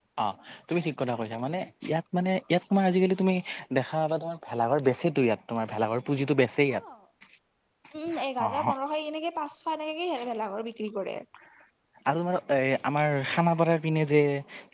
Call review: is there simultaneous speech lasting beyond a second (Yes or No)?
No